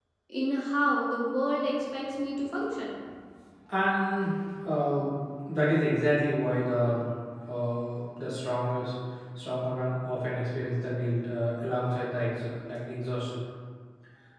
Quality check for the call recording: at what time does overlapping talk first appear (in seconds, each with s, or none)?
none